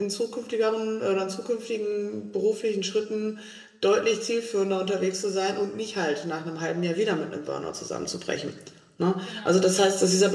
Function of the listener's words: listening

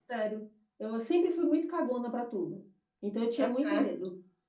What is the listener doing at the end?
listening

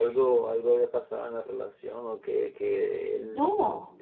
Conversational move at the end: listening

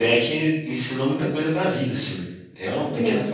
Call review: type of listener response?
taking over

